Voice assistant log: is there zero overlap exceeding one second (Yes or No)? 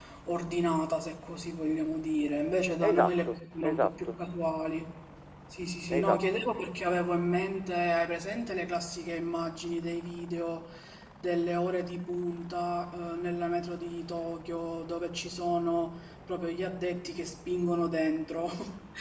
No